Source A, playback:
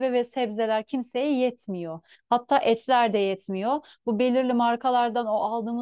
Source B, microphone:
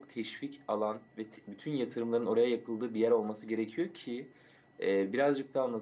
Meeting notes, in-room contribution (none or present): present